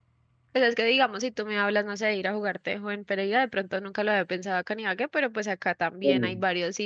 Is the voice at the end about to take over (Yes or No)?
No